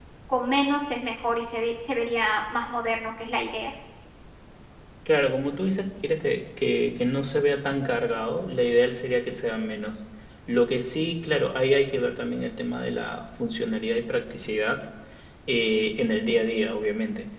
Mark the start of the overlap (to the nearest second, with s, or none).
none